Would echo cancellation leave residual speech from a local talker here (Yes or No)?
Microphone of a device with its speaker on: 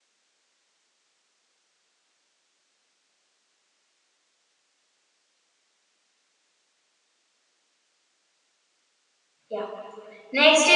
Yes